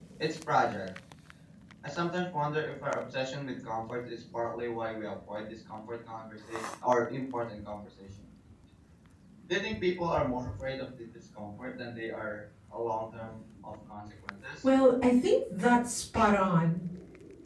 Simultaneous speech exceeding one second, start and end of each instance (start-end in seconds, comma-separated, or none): none